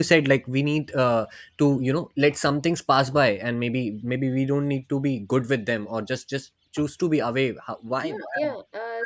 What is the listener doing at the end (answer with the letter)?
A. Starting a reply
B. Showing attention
A